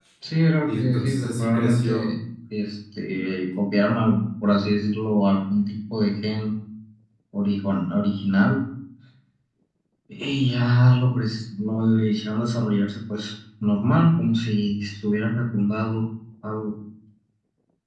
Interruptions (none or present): present